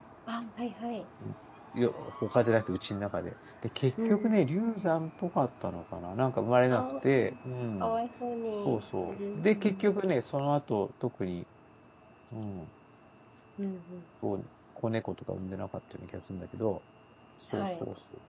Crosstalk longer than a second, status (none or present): present